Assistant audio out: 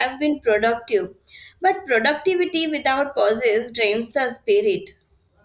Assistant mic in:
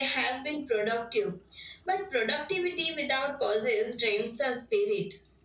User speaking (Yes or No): No